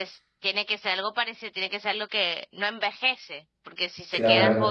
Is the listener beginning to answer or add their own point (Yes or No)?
No